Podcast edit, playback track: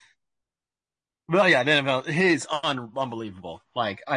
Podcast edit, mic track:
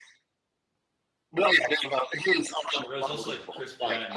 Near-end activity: present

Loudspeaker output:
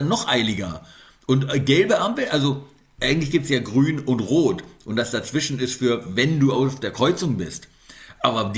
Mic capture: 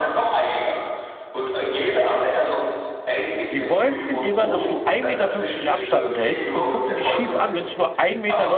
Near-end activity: present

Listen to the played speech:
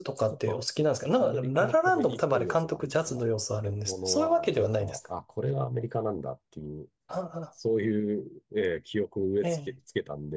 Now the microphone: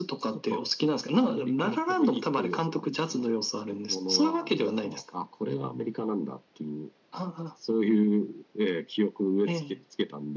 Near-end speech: none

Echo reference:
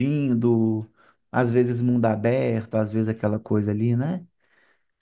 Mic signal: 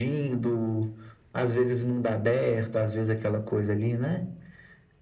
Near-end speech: none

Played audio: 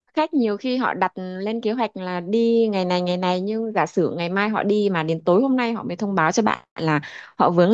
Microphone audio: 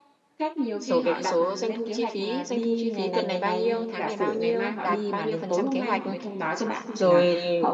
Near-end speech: present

